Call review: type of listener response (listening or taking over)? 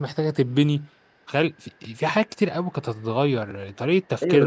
taking over